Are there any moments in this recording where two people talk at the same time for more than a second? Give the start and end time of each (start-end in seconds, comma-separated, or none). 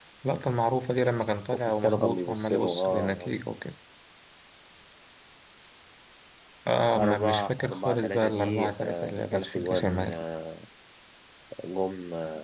1.7-3.3, 7.0-10.2